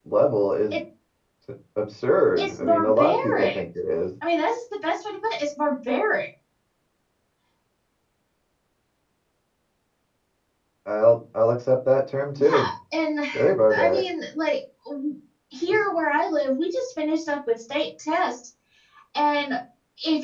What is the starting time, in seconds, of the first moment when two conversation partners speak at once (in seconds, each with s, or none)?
2.4 s